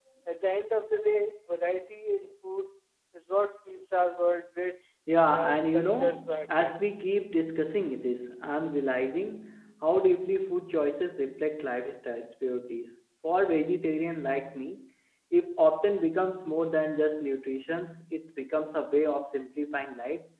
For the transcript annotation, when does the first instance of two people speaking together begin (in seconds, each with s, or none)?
5.1 s